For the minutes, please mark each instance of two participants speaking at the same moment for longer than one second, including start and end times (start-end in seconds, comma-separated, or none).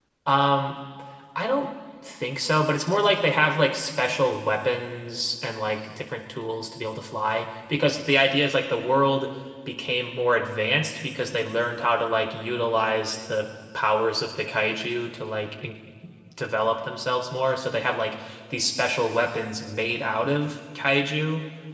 none